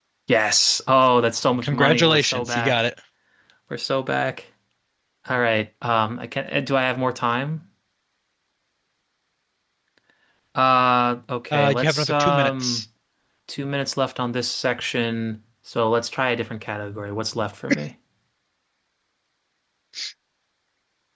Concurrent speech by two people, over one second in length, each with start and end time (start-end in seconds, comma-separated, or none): 1.6-2.8, 11.5-12.8